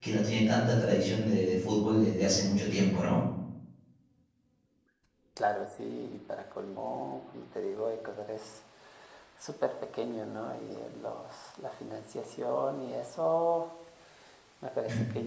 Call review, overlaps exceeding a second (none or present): none